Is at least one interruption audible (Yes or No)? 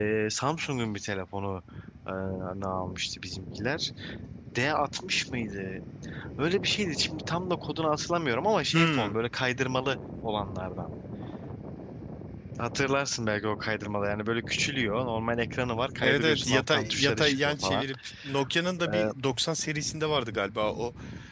Yes